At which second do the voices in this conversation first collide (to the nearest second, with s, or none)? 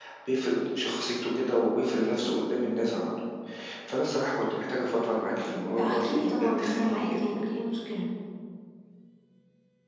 6 s